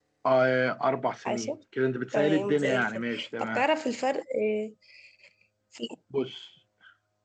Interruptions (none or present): present